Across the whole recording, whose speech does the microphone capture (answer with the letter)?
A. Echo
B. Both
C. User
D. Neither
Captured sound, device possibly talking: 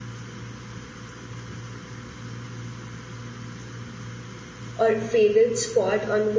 C